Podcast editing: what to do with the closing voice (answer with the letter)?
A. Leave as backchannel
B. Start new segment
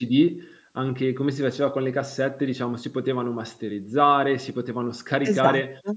A